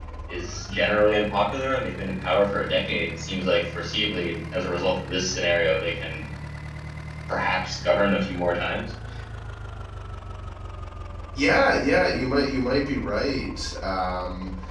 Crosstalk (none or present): none